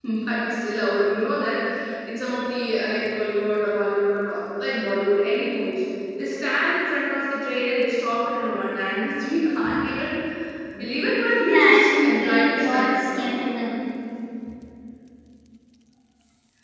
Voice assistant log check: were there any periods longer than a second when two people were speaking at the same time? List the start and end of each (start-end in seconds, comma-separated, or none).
11.4-13.4